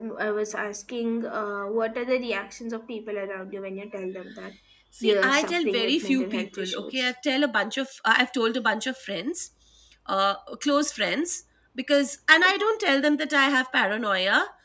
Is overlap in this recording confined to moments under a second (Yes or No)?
No